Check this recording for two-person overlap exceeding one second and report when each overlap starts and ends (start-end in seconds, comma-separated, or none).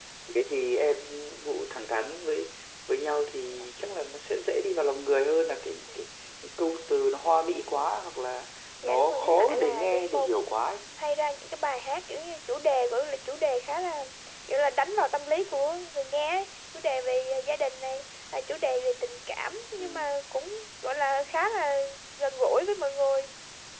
8.8-10.6